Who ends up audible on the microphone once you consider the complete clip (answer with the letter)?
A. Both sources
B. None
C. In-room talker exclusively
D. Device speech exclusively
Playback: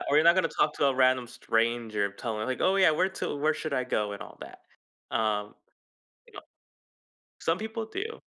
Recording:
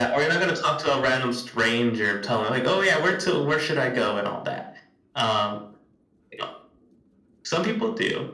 D